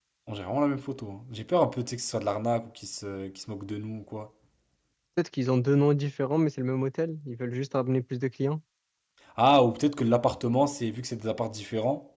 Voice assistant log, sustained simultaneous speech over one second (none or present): none